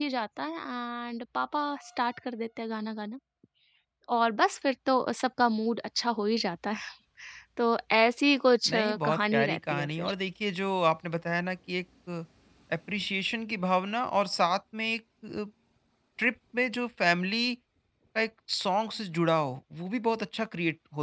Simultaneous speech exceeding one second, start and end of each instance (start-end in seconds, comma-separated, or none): 8.7-10.1